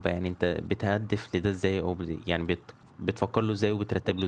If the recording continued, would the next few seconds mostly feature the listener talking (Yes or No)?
Yes